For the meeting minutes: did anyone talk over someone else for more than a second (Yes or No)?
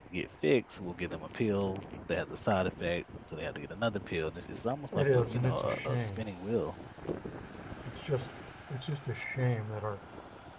Yes